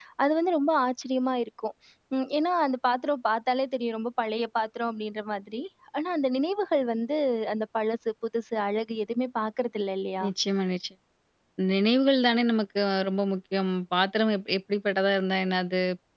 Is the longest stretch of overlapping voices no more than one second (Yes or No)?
Yes